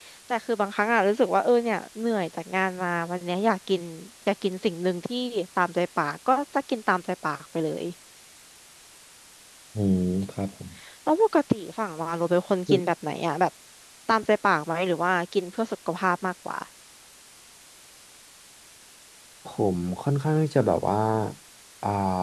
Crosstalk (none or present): none